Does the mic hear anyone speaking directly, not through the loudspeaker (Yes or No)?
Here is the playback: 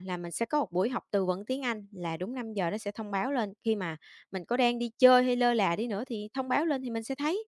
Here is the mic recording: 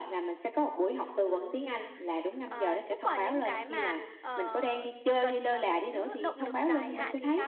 Yes